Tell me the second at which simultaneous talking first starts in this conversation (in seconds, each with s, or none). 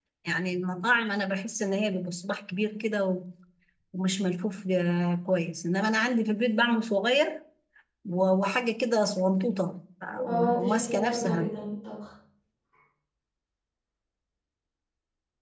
10.2 s